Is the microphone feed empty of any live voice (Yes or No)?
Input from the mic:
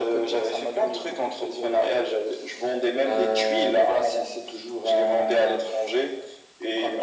Yes